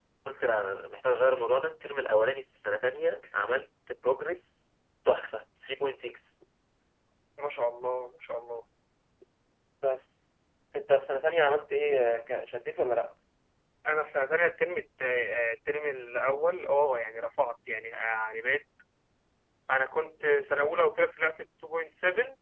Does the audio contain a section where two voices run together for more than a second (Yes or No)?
No